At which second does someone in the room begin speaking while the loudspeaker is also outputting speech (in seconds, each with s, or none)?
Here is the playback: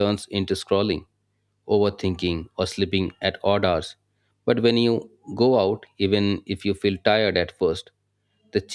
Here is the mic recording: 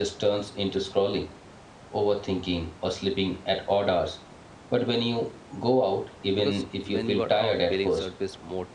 6.3 s